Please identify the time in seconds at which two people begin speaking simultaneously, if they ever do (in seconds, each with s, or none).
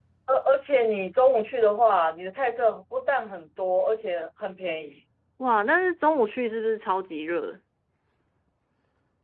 none